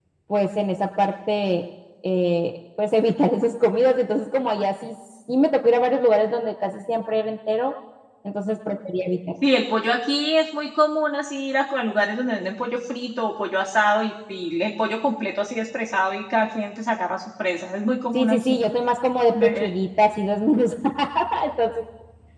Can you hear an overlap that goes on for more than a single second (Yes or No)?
No